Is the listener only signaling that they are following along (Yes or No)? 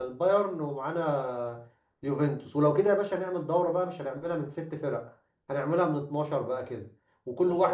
Yes